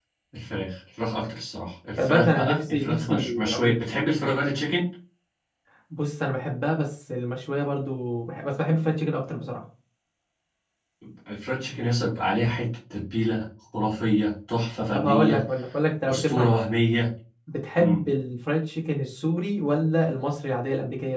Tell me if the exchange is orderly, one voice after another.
No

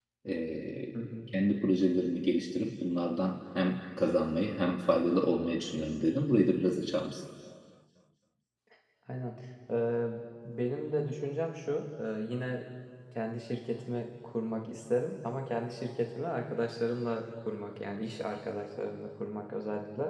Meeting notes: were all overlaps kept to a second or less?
Yes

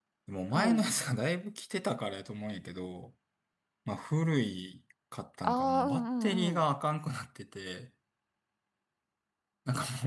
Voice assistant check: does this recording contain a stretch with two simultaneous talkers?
Yes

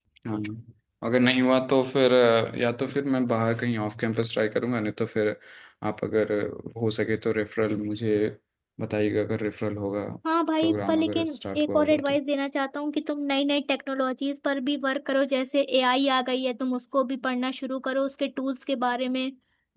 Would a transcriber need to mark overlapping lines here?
Yes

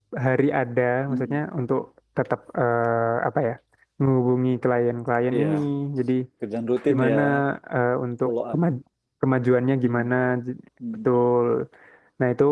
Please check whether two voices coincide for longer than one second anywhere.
No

